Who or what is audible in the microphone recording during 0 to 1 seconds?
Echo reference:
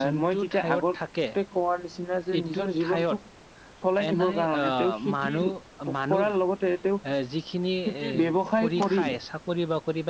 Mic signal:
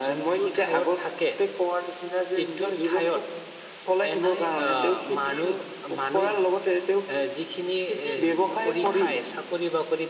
echo only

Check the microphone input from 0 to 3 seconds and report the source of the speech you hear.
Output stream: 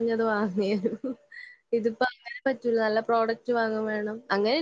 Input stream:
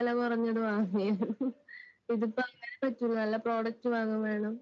echo only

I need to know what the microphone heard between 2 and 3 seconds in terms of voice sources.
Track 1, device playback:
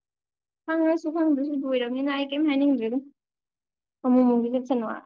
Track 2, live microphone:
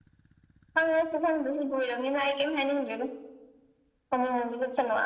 echo only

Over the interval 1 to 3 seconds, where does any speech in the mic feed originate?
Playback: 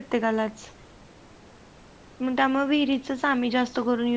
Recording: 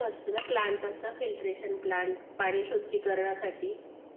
user only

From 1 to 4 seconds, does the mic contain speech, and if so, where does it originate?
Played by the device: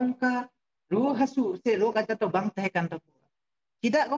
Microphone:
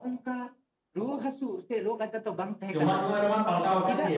both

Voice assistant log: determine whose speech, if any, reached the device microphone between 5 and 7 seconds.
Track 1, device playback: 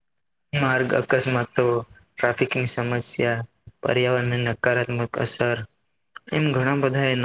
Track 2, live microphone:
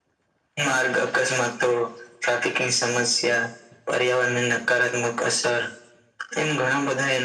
echo only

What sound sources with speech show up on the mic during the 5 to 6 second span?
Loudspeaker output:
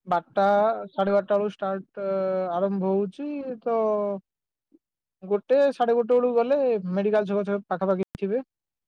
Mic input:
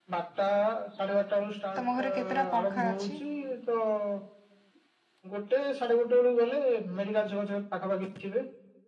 echo only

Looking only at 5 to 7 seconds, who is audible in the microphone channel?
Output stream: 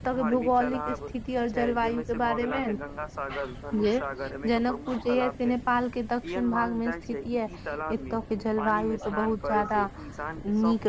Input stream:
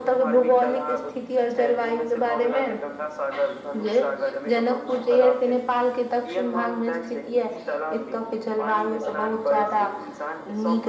echo only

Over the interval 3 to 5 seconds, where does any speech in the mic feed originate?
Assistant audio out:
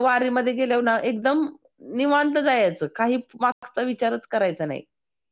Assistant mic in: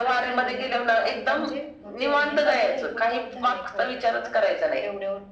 both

